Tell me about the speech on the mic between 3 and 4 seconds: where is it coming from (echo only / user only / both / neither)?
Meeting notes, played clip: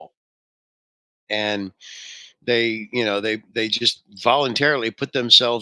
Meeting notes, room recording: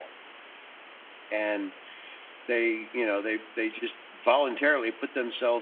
echo only